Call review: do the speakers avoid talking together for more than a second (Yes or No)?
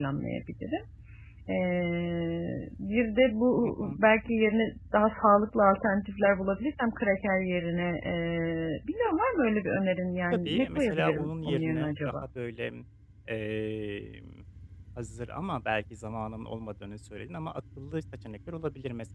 No